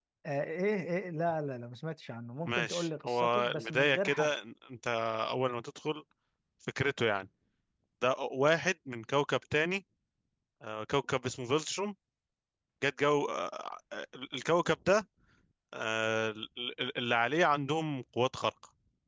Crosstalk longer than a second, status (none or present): present